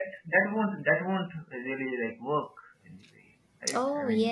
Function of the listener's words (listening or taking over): taking over